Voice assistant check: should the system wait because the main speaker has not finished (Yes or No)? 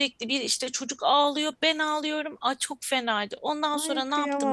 No